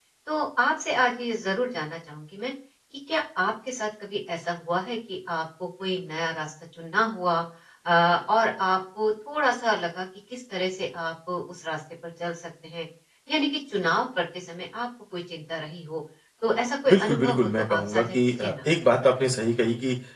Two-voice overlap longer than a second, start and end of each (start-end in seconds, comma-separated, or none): 16.9-18.5